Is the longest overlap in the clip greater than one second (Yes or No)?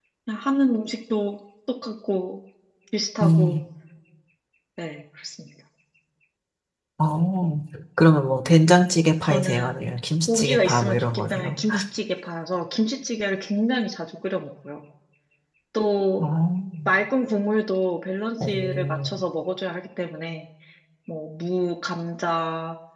Yes